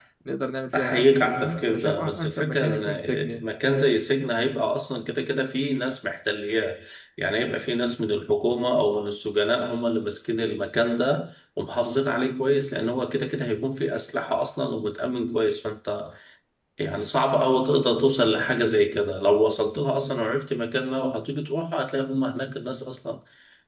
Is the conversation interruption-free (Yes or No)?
No